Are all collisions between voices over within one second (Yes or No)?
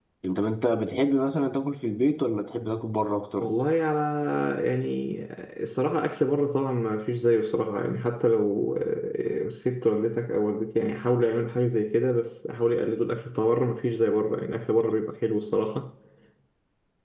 Yes